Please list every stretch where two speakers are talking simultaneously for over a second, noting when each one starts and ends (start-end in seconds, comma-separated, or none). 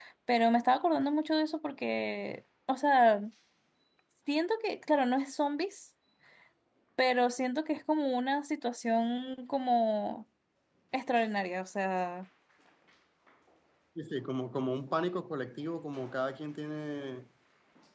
none